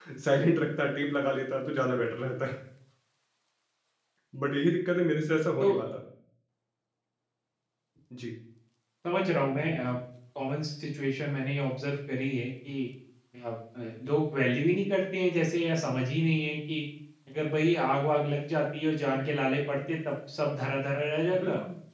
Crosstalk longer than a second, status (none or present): none